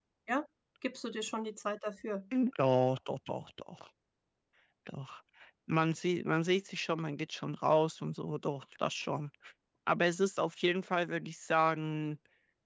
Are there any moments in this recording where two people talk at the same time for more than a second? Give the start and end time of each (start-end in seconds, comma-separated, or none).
none